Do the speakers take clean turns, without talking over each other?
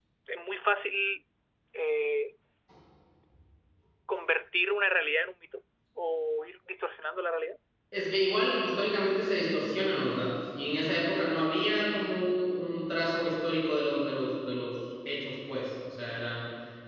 Yes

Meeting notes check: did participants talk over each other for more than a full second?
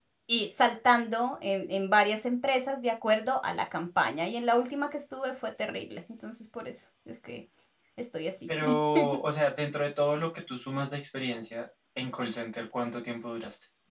No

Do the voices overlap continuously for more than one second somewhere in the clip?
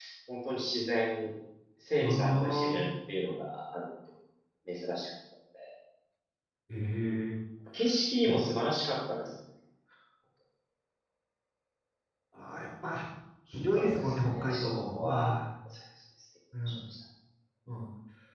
Yes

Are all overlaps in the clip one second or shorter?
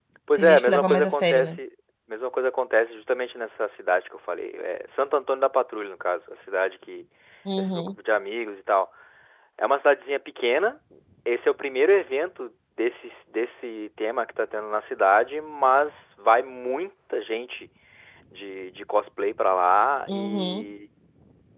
No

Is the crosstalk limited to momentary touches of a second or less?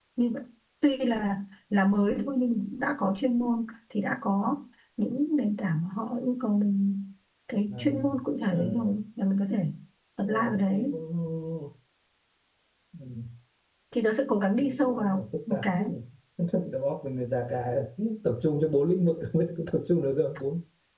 No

